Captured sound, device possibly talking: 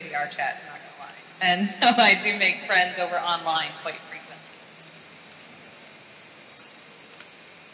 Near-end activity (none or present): none